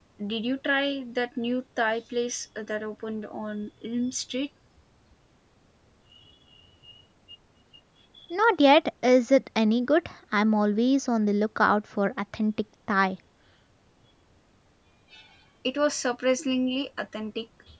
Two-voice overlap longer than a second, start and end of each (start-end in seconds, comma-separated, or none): none